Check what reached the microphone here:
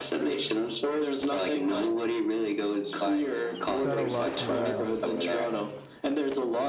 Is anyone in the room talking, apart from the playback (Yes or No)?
Yes